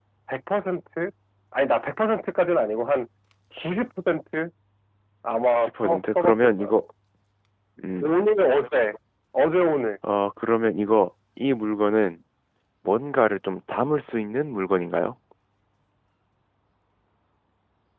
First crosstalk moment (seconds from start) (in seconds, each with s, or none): 5.5 s